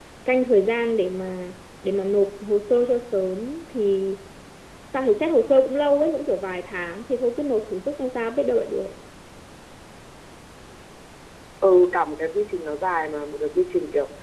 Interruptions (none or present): none